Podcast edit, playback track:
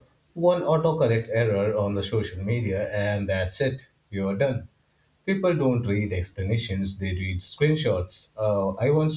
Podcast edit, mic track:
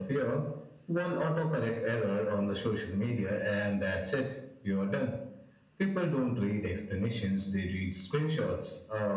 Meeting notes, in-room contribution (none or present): none